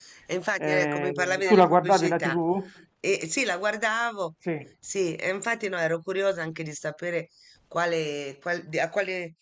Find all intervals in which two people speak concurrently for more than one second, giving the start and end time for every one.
0.6-2.4

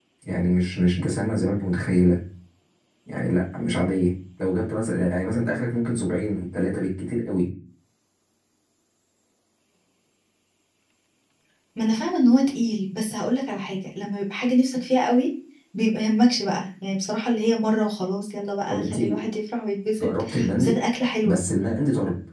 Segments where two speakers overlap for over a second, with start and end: none

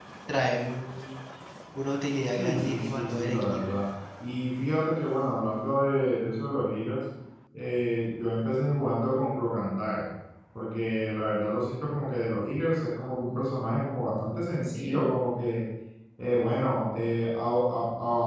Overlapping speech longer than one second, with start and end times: 2.3-3.6

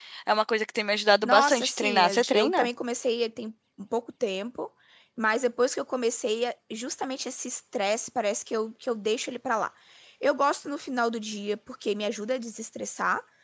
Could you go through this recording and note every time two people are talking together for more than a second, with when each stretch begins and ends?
1.2-2.7

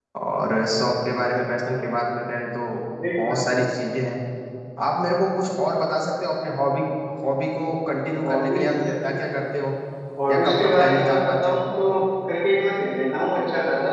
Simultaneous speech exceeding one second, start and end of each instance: 10.3-11.6

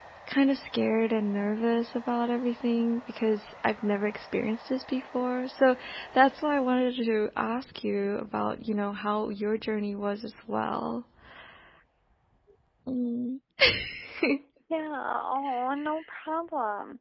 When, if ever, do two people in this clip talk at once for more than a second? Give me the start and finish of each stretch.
none

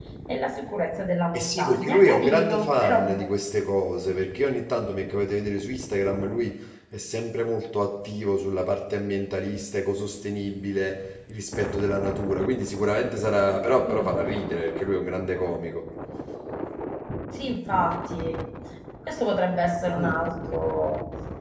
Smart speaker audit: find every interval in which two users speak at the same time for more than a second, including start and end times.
1.3-3.3

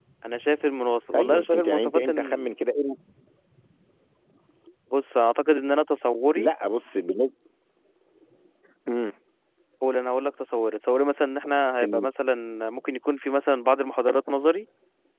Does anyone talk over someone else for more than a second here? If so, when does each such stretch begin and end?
1.1-2.5

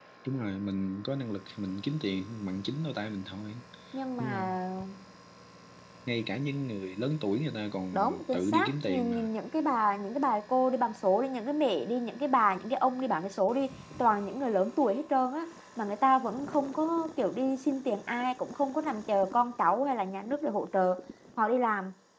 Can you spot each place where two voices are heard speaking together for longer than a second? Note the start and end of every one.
7.9-9.3

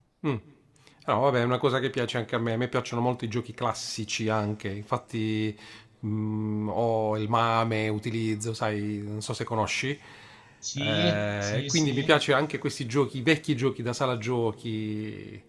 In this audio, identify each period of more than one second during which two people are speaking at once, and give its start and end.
10.8-12.1

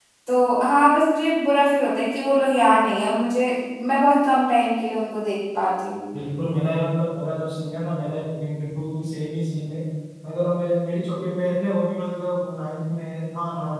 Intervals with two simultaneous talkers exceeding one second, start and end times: none

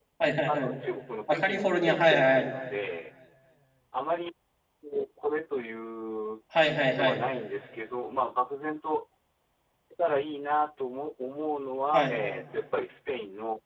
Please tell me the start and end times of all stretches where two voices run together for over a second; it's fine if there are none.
1.3-2.5

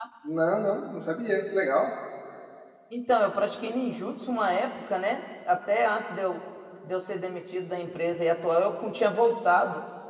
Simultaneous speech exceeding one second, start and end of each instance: none

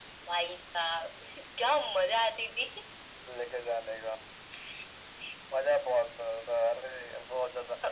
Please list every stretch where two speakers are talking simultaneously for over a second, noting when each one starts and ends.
none

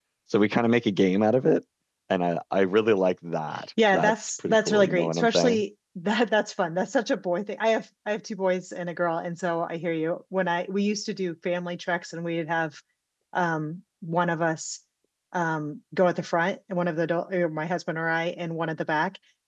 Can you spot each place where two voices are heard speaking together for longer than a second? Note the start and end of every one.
3.9-5.6

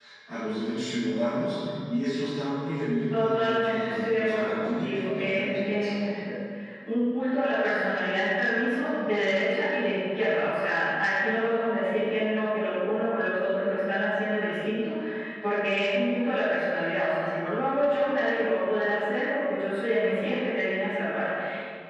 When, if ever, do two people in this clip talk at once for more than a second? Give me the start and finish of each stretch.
3.1-6.0

